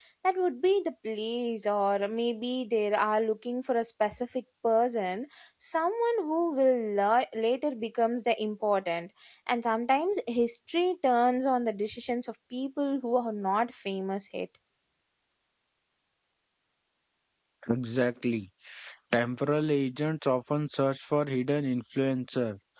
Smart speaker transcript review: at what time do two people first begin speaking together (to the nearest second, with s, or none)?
none